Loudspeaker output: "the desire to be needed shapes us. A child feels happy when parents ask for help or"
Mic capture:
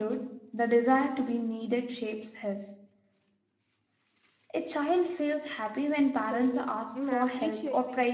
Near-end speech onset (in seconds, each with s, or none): 6.1 s